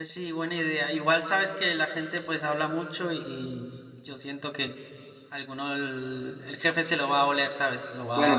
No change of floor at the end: No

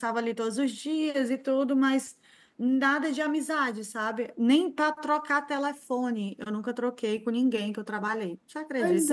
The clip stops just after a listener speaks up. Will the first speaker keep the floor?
No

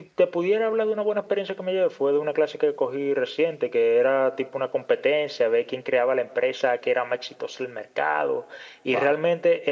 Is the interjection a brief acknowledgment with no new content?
Yes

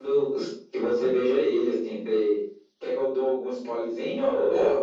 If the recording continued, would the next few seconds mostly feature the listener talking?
Yes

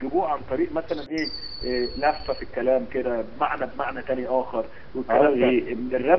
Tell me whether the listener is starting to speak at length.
Yes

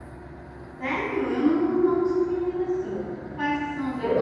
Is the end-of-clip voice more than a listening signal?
Yes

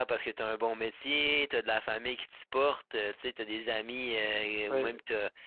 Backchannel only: Yes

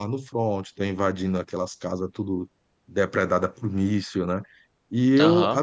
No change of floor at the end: Yes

